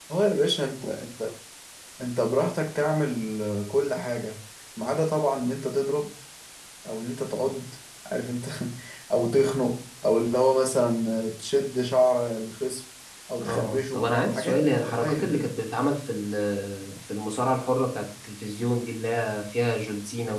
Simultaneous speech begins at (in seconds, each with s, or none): 13.4 s